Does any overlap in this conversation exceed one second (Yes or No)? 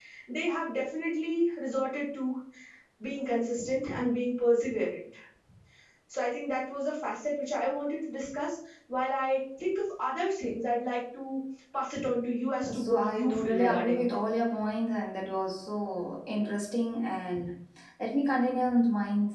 Yes